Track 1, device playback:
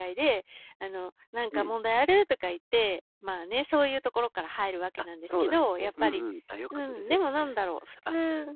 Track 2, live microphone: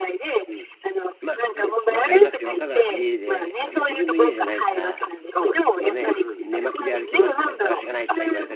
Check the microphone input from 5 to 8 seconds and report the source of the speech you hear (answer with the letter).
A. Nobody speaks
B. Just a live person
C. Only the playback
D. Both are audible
D